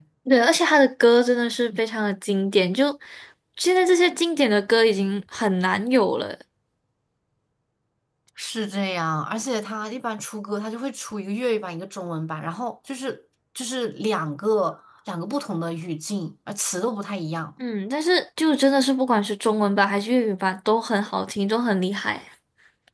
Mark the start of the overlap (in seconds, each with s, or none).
none